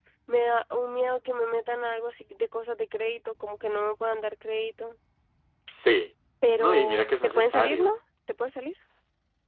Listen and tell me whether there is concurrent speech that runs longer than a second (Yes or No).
Yes